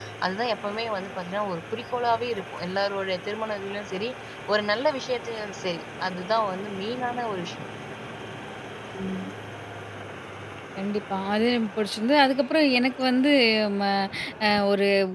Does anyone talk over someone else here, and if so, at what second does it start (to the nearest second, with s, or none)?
none